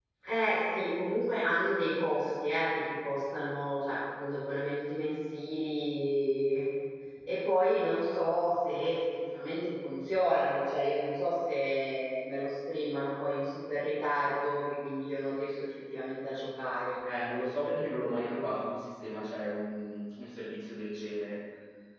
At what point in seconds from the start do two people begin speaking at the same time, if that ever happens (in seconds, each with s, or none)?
none